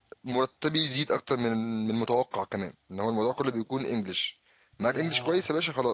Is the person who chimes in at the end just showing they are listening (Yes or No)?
Yes